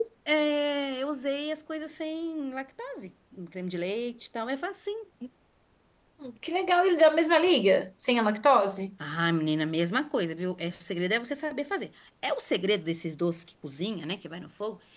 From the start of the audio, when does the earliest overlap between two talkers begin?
none

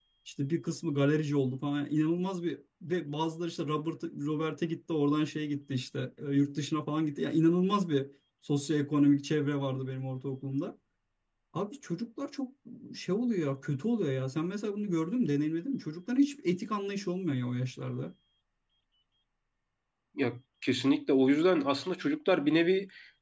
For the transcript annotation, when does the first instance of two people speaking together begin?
none

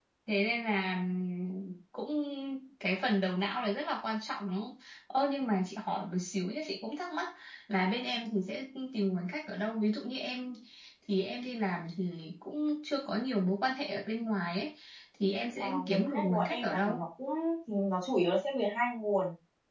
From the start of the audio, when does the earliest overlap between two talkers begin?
15.6 s

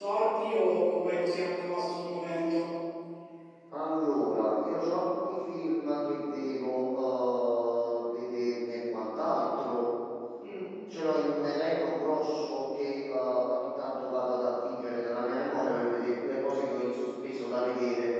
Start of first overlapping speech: none

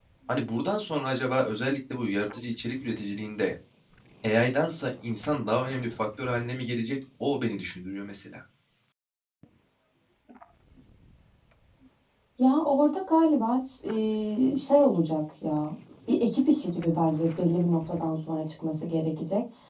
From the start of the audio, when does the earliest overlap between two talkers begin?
none

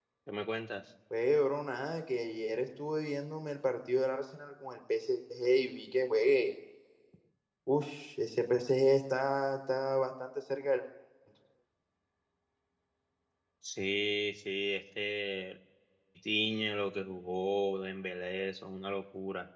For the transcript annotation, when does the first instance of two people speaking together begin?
none

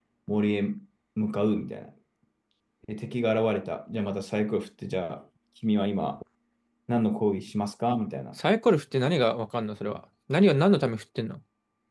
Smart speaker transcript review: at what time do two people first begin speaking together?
none

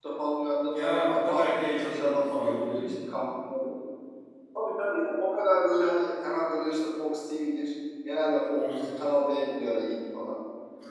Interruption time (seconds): 0.7 s

